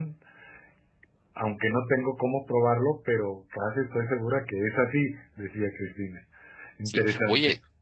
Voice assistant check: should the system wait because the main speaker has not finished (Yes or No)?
No